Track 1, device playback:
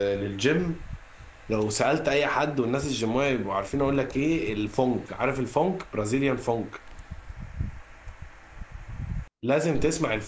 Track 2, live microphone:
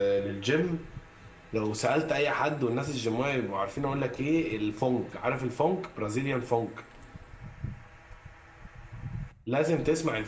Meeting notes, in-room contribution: none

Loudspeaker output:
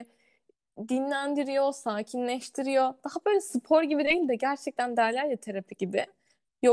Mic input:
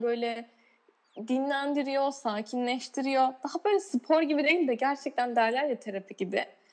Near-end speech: none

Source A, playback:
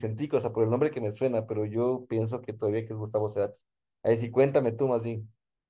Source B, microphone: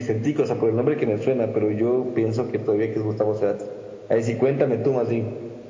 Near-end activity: none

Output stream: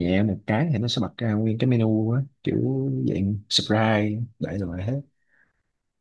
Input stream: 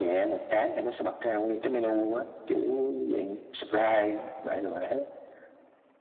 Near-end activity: none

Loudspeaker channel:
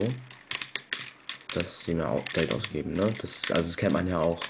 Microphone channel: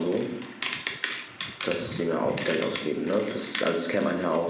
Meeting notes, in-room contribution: none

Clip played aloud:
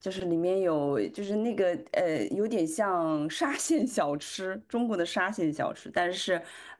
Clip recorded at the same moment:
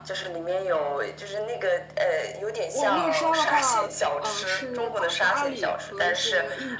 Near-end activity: present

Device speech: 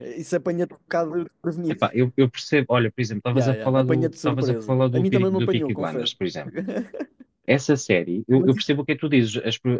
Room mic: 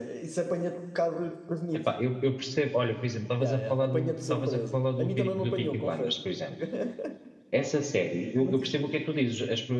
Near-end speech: none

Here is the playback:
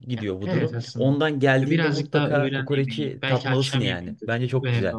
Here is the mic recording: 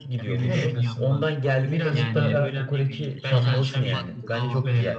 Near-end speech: present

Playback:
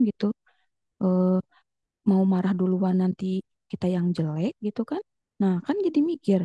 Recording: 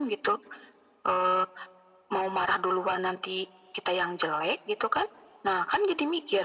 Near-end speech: none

